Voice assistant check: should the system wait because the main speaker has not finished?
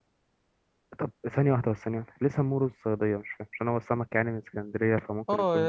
No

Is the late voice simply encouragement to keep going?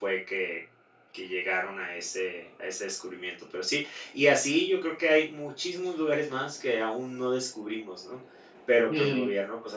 Yes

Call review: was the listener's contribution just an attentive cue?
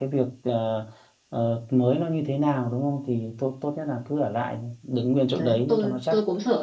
No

